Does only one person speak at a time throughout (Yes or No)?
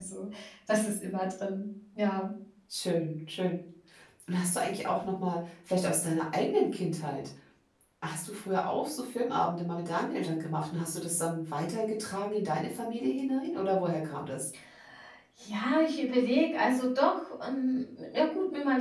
Yes